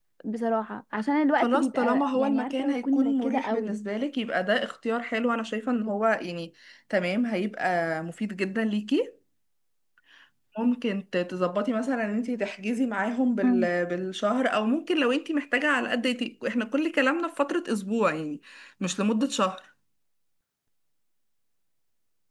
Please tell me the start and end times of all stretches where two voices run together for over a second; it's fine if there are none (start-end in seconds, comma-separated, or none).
1.4-3.7